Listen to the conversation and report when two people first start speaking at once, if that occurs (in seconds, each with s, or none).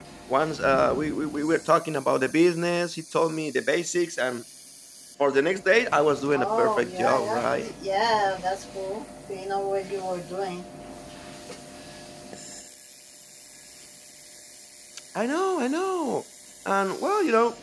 6.3 s